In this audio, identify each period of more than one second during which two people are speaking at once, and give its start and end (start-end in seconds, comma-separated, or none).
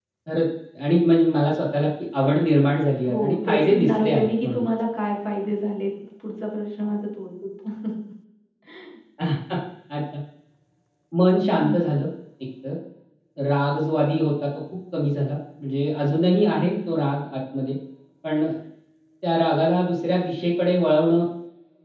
3.1-4.7